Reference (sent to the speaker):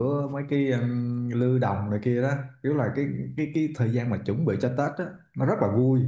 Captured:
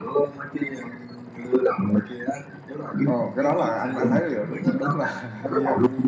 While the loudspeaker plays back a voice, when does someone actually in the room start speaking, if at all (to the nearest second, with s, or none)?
3 s